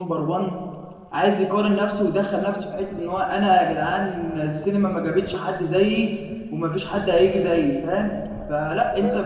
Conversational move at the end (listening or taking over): listening